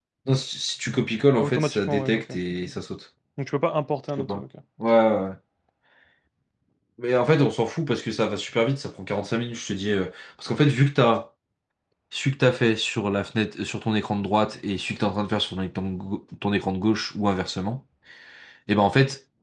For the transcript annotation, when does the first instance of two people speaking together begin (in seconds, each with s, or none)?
1.4 s